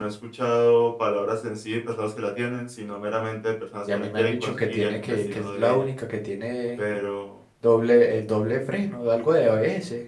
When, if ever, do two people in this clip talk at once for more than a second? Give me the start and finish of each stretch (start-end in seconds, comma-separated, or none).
3.9-5.9